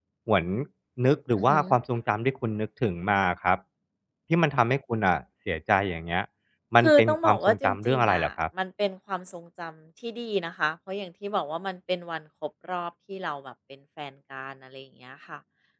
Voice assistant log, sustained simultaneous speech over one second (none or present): present